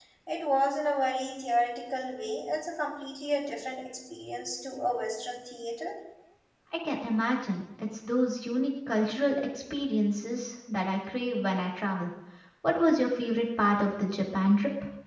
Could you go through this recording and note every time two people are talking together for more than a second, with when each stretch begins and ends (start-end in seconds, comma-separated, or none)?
none